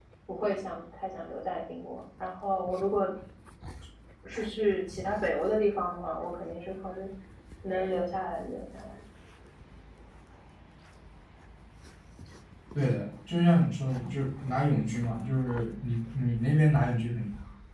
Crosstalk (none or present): none